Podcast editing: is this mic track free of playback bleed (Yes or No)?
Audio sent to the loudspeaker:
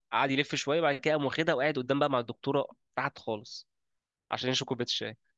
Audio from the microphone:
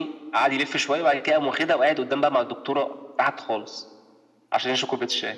No